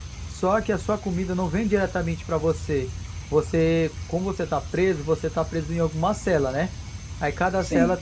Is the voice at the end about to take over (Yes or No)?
No